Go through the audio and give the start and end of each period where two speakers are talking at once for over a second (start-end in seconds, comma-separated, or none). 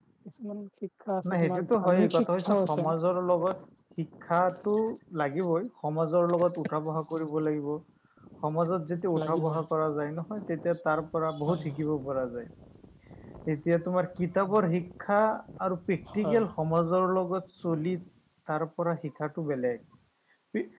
1.3-2.9